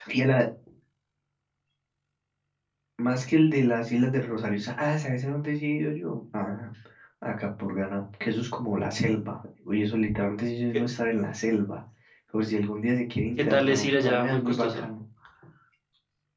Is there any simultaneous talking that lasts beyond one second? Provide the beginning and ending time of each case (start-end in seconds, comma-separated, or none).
13.4-14.8